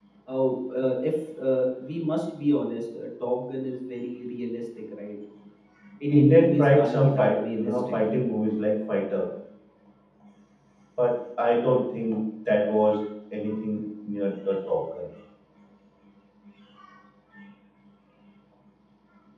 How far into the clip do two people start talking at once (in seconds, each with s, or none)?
6.1 s